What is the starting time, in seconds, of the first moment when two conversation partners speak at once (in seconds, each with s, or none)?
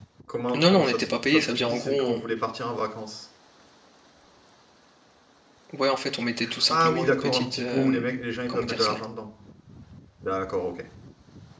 0.5 s